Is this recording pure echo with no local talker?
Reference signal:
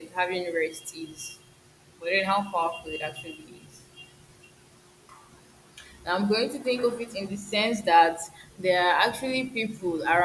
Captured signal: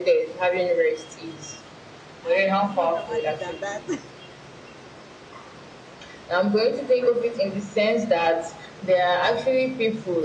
No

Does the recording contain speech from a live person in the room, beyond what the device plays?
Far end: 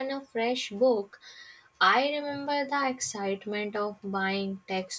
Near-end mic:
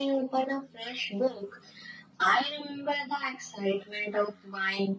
No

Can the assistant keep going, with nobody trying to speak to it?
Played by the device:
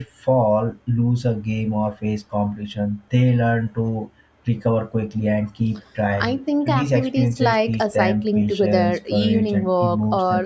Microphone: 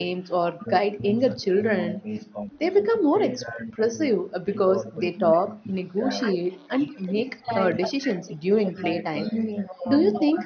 No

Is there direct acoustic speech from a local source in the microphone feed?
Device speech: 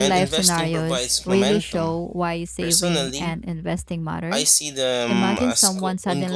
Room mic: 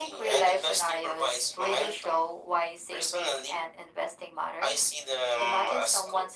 No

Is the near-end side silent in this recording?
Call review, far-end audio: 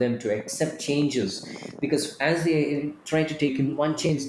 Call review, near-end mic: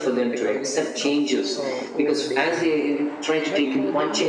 No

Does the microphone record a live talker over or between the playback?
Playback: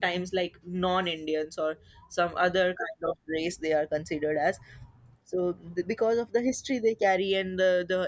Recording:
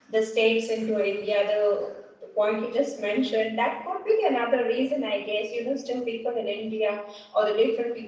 Yes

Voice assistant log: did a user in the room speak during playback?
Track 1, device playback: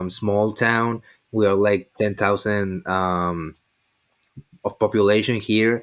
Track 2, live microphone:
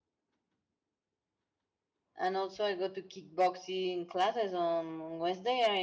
Yes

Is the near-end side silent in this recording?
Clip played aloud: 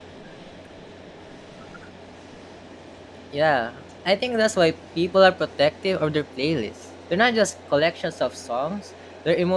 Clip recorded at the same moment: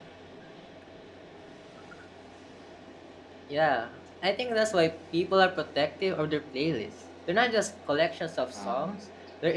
No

